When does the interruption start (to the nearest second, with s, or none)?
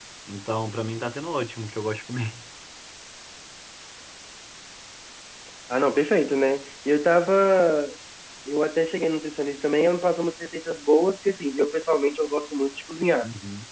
none